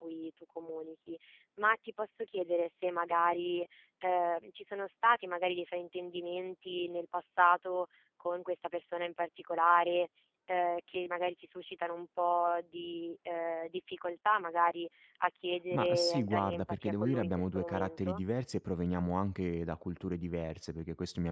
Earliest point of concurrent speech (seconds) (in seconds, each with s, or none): 15.7 s